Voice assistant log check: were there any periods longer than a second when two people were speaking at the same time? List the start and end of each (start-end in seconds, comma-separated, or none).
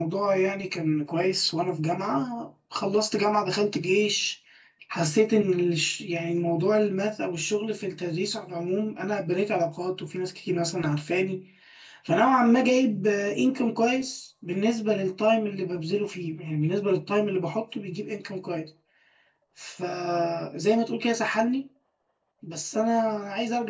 none